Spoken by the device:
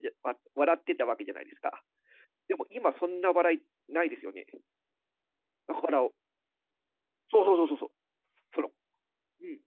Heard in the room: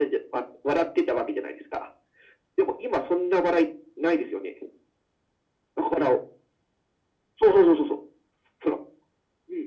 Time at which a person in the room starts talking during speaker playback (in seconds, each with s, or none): none